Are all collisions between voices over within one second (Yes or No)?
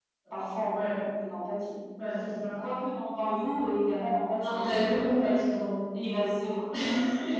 Yes